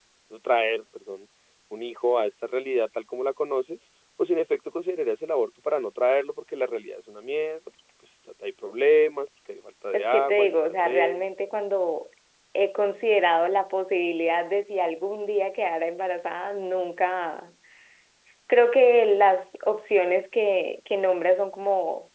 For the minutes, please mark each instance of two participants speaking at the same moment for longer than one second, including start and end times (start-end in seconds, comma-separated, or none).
9.9-11.3